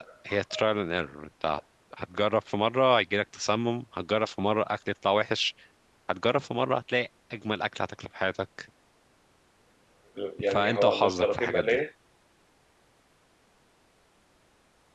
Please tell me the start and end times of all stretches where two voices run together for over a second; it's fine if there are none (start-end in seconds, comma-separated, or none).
10.4-11.8